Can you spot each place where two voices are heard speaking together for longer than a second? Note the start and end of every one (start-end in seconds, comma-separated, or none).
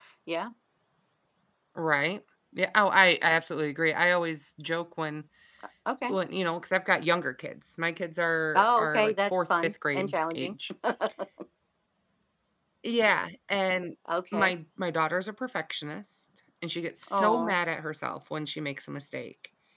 8.6-10.5